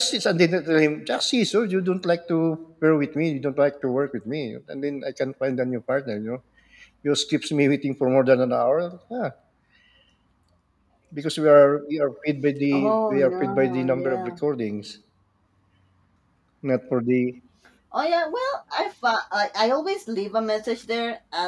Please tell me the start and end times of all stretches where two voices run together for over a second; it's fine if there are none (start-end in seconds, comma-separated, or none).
12.7-14.3